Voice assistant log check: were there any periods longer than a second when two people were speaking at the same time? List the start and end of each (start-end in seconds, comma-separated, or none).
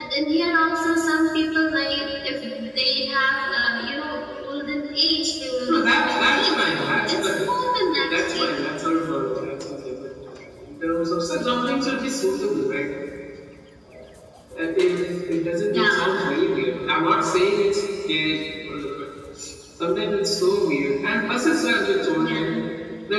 5.7-7.4